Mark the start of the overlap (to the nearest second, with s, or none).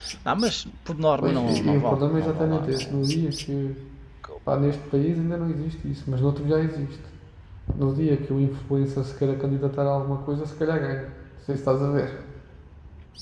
1 s